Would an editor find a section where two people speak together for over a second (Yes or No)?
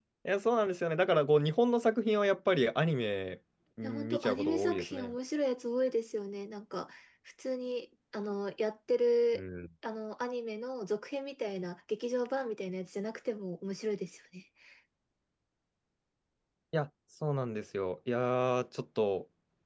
Yes